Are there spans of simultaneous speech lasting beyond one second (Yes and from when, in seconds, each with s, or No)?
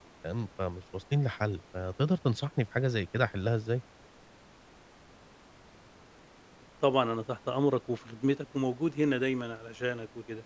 No